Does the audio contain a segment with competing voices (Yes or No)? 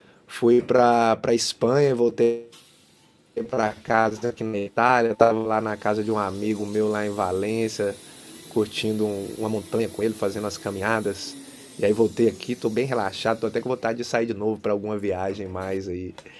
No